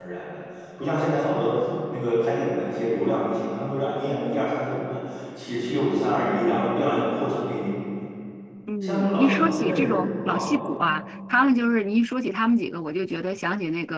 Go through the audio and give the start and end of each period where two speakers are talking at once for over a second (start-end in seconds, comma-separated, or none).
8.8-11.0